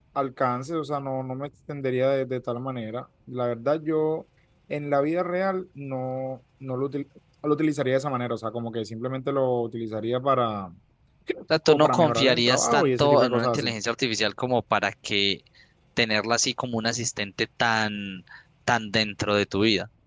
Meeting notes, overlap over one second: present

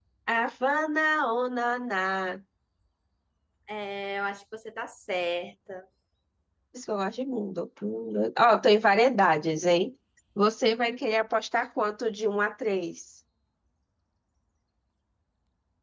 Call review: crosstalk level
none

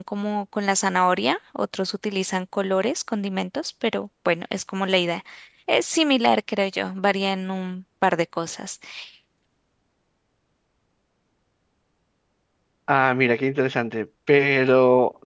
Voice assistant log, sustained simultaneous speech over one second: none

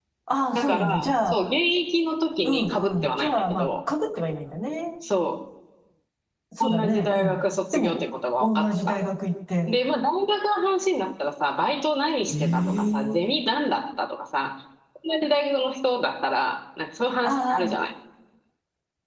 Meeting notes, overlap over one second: present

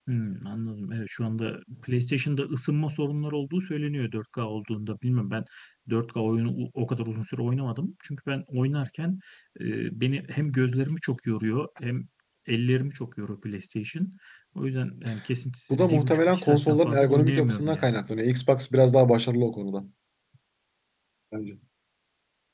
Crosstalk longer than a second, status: present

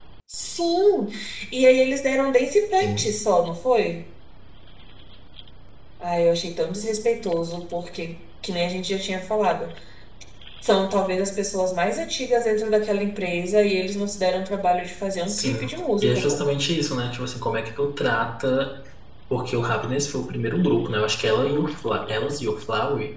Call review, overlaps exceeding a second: none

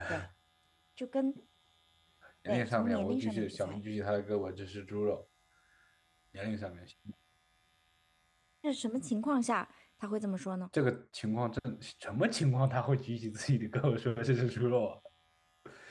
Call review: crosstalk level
present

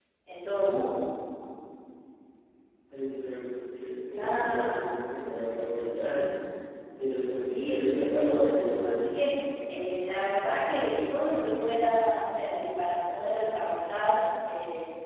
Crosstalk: present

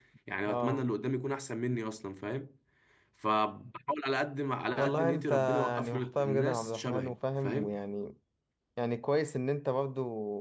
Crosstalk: present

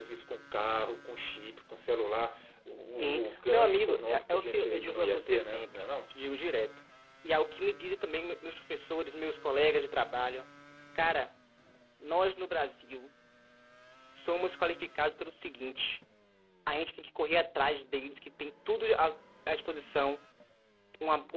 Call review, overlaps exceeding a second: present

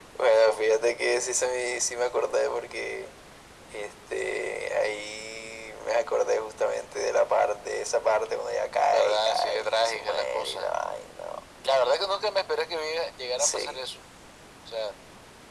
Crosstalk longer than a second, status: present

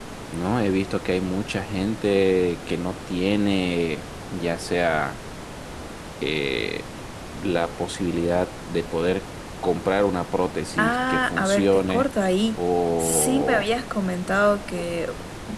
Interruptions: present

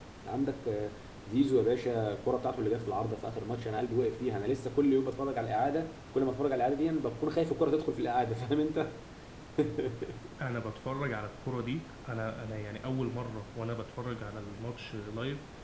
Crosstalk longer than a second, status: none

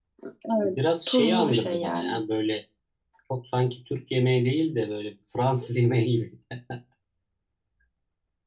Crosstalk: present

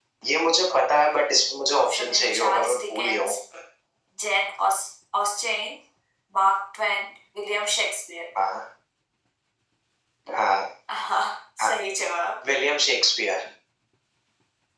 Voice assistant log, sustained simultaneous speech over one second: present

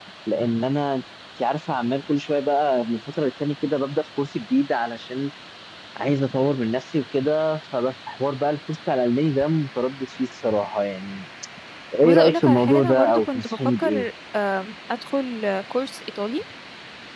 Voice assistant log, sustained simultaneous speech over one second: present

